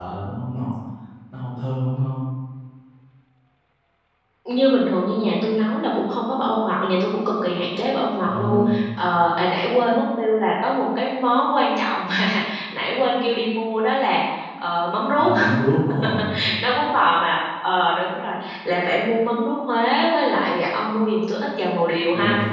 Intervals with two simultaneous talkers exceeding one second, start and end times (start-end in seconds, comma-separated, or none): none